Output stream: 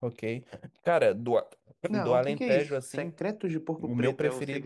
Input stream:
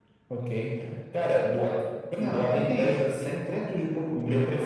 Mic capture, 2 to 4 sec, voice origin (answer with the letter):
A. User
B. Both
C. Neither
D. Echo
D